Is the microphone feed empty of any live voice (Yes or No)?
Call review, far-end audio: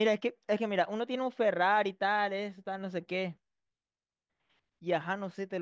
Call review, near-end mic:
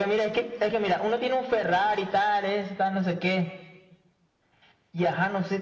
Yes